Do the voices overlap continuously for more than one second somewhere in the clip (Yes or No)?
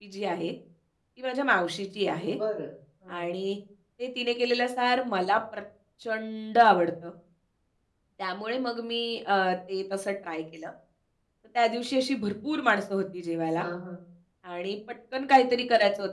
No